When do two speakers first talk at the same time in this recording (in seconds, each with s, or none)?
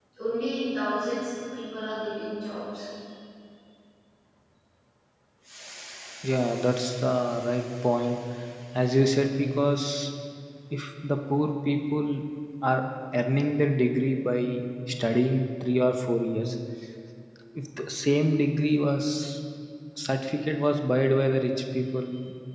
none